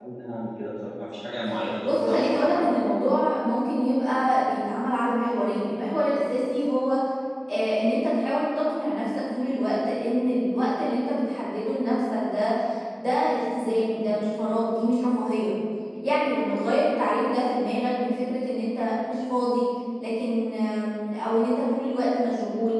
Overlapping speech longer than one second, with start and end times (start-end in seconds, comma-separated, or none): 1.8-3.1